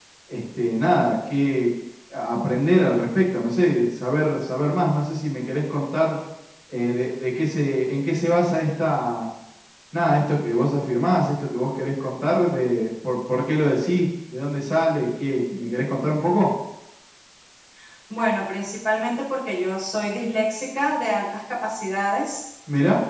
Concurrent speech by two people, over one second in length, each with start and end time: none

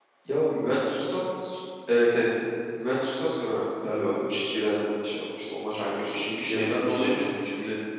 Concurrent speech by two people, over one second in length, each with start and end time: 5.8-7.3

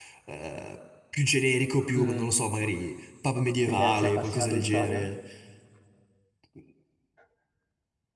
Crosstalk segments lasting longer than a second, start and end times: 3.7-5.1

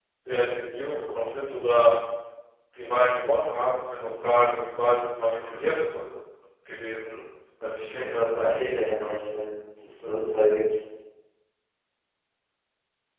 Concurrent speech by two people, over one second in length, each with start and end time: 7.8-9.2

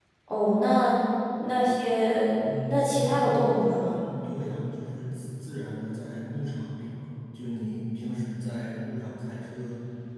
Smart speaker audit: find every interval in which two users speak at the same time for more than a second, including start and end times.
2.7-3.9

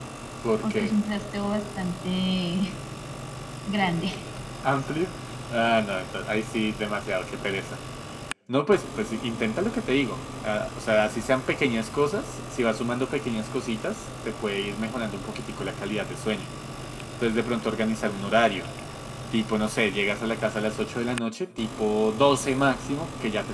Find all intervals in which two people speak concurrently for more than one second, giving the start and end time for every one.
none

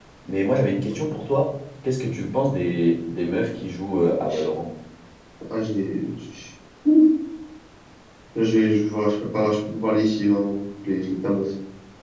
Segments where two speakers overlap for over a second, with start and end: none

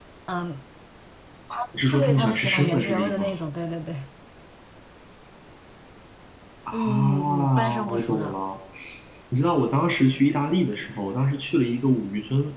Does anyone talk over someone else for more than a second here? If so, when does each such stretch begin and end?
1.9-3.3, 6.7-8.4

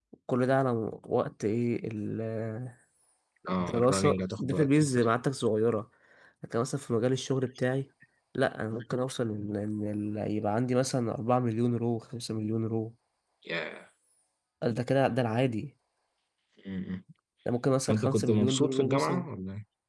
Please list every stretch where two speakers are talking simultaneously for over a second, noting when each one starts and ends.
3.6-5.1, 17.9-19.3

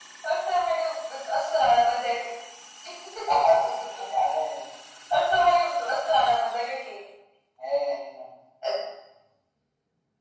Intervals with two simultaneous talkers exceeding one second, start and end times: none

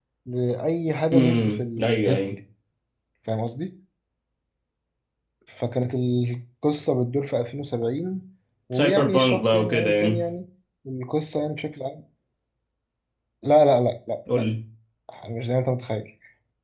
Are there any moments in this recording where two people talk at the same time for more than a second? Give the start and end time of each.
8.7-10.1

